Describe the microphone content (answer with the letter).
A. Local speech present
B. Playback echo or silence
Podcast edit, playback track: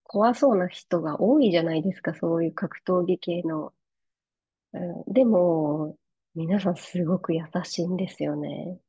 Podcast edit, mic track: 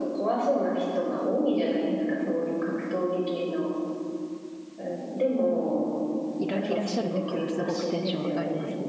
A